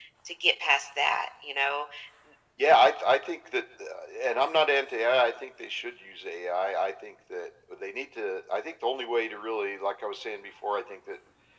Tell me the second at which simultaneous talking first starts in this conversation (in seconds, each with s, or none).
none